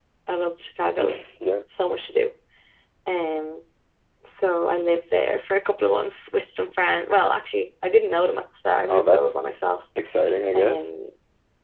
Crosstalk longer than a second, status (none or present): none